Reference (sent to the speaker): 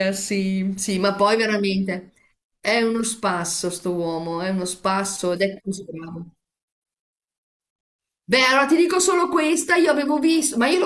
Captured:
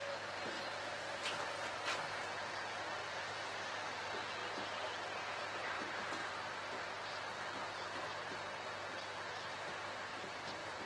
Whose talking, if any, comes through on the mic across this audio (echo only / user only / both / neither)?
neither